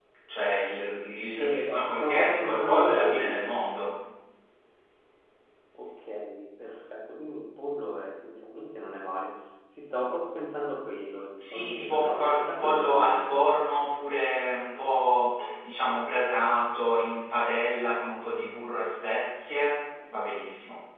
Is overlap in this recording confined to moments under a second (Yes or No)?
No